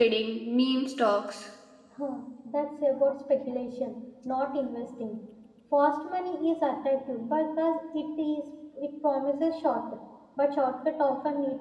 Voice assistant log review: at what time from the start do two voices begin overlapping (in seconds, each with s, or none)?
none